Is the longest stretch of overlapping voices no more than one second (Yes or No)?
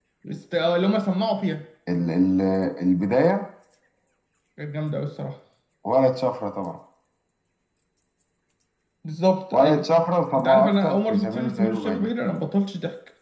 No